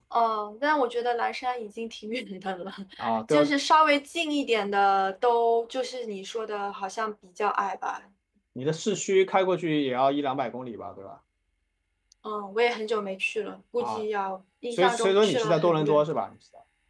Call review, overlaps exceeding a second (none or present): present